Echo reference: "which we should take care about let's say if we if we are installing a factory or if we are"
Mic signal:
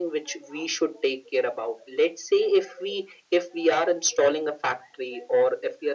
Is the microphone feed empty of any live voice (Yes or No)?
Yes